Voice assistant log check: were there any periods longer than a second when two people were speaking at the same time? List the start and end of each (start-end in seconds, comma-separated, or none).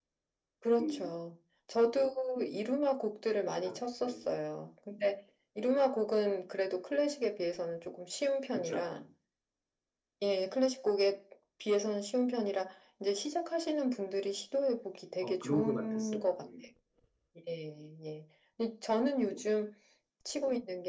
15.2-16.4